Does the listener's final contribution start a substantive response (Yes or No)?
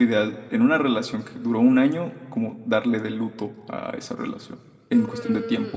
Yes